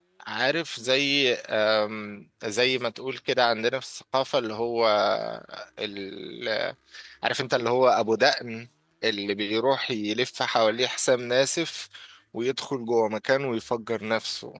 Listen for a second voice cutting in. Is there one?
No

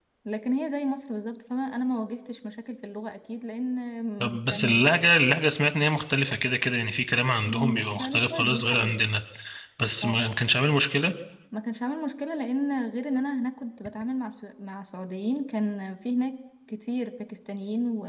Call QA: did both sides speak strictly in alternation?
No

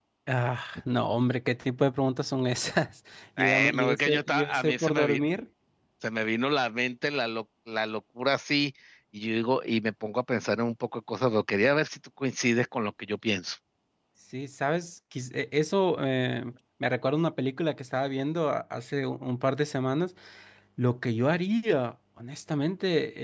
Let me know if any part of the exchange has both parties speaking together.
Yes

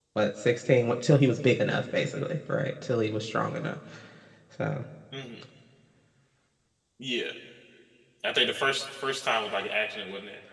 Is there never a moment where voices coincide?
Yes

